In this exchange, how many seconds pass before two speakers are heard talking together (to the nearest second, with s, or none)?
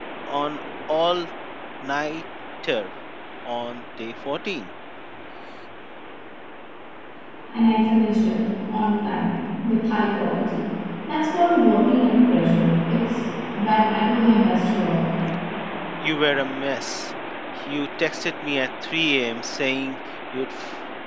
none